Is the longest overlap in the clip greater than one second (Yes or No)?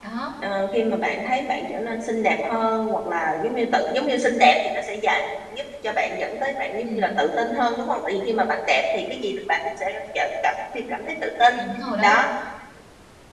No